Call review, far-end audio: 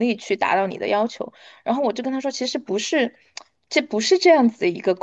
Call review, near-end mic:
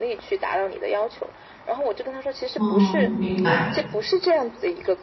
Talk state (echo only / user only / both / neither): both